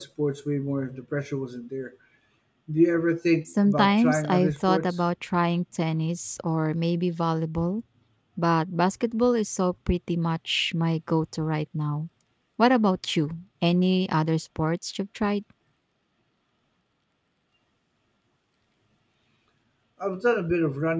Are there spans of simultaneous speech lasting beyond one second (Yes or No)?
Yes